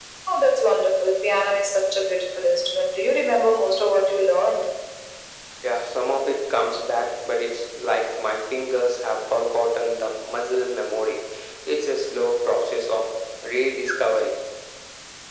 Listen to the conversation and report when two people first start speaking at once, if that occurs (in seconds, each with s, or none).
none